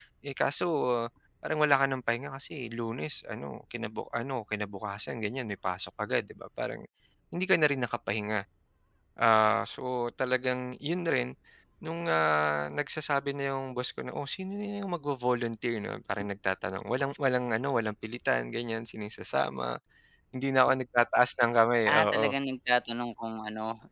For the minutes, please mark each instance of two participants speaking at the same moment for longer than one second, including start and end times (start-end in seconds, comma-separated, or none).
none